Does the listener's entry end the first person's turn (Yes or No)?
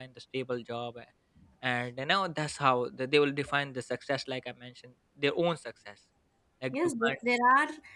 Yes